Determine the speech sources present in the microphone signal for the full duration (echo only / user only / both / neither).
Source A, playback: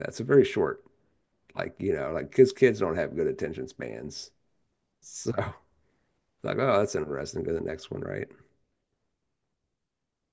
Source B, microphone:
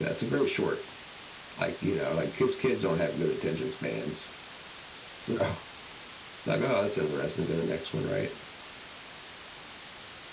echo only